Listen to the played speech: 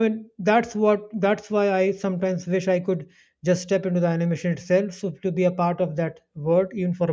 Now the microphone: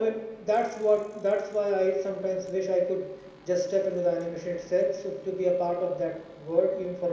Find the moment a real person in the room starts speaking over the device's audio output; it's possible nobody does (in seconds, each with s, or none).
none